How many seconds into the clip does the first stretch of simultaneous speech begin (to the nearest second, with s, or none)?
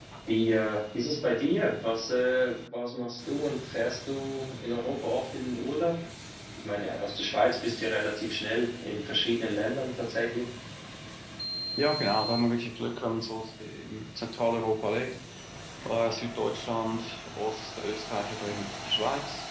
none